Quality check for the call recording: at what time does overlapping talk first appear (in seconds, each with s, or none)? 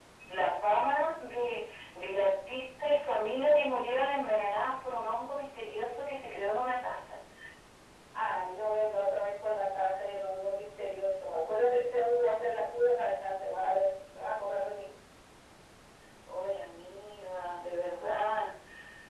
none